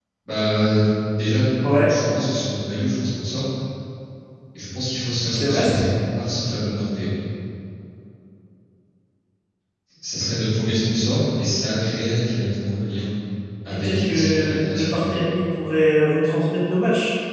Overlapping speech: Yes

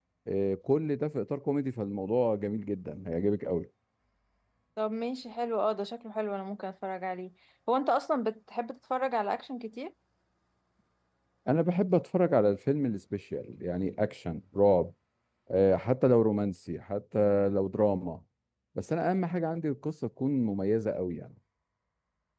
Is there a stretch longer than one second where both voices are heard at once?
No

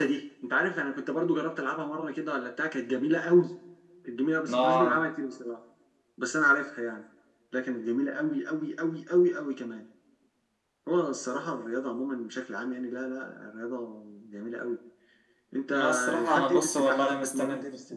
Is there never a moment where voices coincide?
No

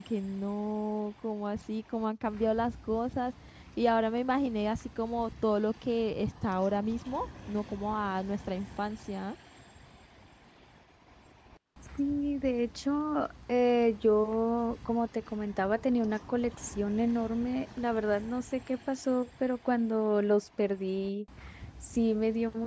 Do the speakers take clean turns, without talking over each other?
Yes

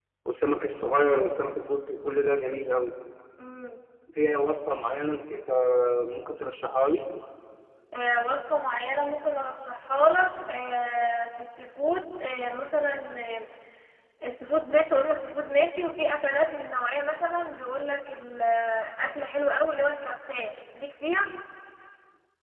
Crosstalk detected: No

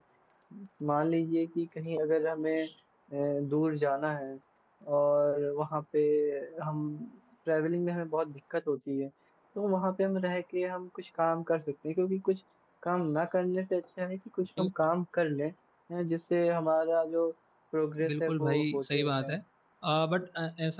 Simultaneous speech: Yes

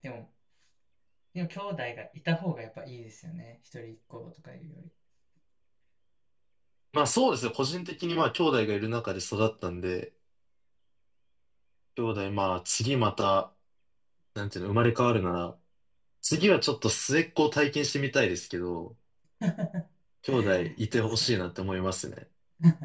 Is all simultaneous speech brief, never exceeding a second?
No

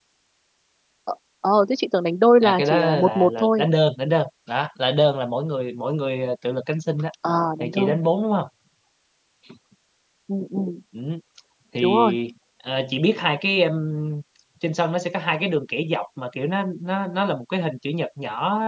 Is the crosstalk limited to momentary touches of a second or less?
No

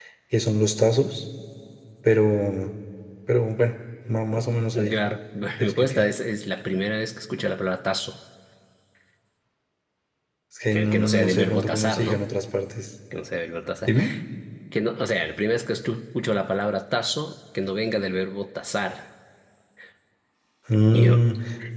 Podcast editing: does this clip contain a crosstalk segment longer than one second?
Yes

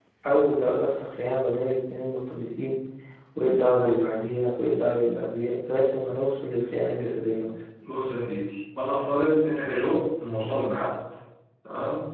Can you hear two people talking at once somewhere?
No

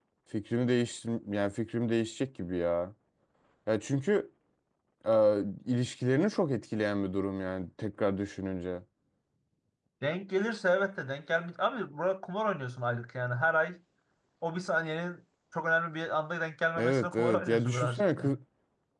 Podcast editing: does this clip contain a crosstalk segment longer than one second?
Yes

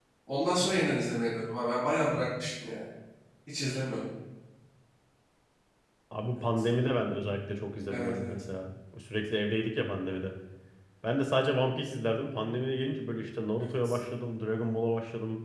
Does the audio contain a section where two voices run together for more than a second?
No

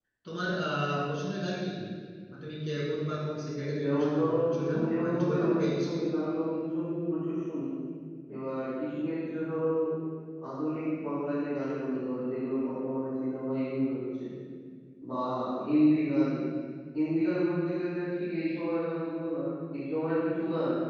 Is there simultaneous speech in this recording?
Yes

